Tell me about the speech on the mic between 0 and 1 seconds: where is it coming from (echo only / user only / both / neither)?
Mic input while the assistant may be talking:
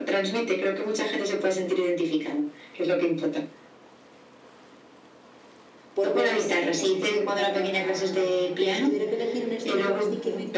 echo only